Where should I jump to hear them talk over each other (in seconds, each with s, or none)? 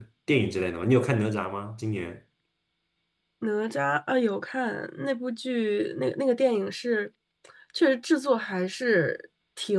none